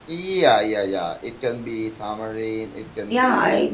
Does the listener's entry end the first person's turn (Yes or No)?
Yes